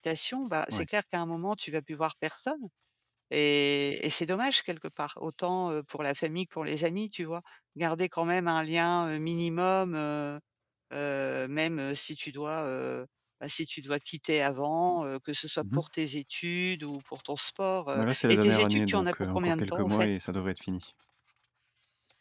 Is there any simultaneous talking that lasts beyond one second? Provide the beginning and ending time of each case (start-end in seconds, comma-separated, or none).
17.9-20.1